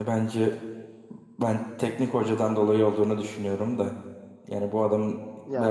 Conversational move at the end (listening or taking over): taking over